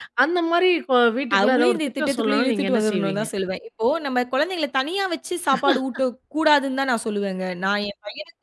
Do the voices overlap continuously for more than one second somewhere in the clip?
Yes, from 1.3 s

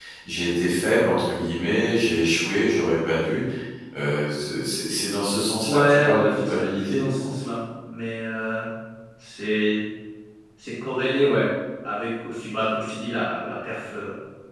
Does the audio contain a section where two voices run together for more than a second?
Yes, from 5.6 s

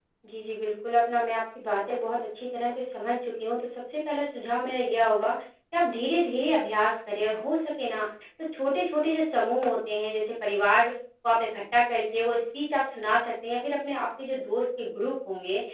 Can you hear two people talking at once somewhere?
No

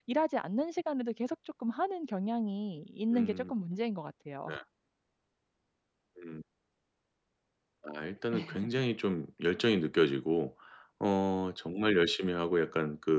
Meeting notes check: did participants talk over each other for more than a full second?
No

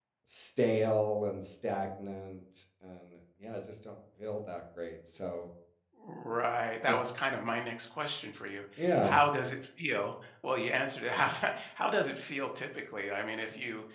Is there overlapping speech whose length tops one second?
No

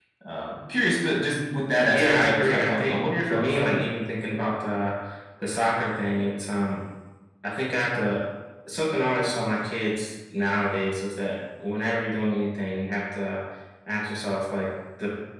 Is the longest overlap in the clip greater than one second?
Yes, from 1.9 s

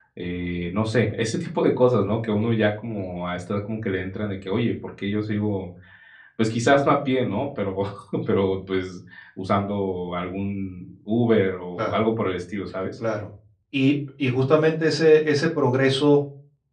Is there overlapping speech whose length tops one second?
No

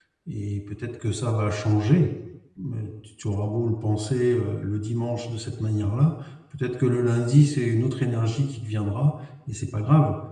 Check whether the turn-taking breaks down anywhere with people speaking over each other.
No

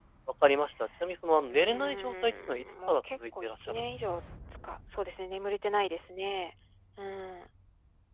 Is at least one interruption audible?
Yes, from 1.4 s

